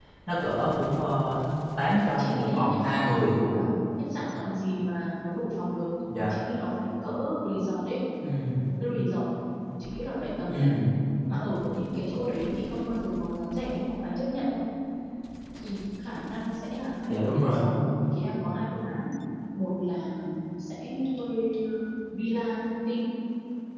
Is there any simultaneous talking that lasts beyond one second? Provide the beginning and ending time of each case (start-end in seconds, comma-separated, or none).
2.2-3.4